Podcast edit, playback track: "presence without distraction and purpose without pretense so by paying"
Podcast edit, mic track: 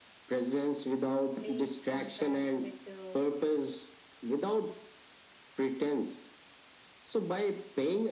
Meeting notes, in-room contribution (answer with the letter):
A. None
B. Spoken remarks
B